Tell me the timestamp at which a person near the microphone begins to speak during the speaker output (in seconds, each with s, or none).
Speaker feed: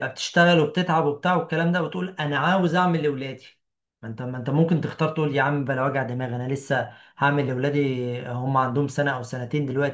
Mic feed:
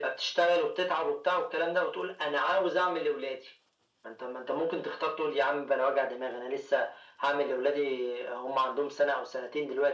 none